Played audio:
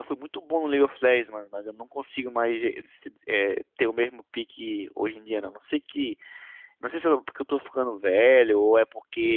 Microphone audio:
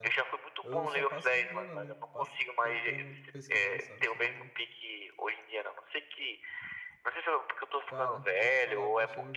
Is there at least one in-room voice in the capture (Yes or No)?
Yes